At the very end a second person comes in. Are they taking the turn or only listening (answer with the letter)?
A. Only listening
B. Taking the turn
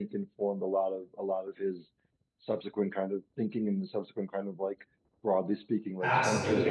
B